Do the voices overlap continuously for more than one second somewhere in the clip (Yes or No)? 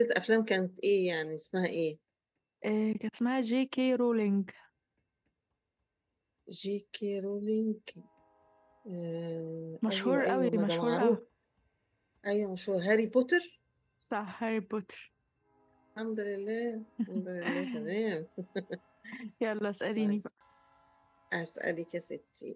Yes